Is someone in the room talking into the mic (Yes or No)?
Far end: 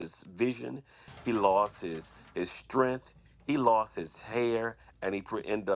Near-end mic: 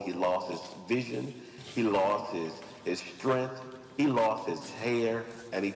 No